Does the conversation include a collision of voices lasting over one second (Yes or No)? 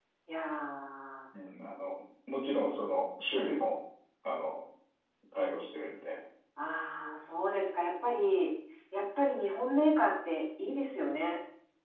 No